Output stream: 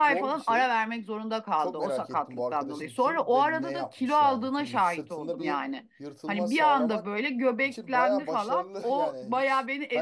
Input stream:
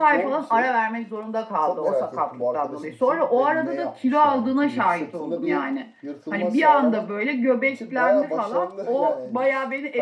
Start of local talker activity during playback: none

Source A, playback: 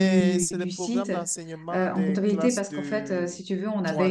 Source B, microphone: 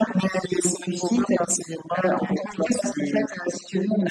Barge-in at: none

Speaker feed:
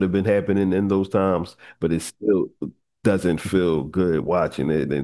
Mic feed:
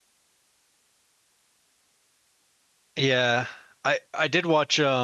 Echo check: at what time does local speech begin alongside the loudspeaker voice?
2.9 s

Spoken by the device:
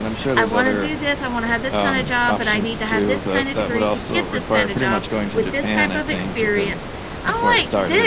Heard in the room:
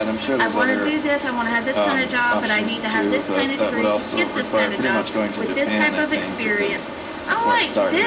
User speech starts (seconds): none

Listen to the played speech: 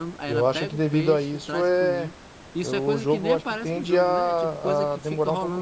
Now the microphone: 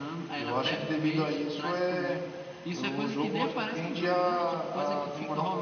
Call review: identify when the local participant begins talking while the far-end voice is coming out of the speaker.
none

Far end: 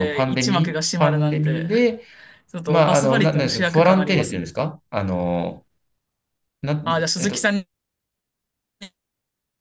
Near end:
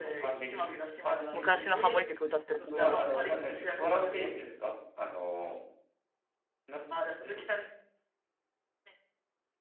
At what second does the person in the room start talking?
1.3 s

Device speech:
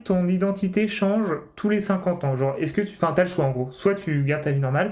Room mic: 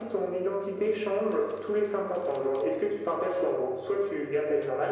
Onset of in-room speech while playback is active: none

